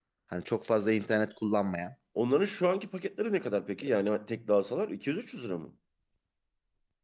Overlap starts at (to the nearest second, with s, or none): none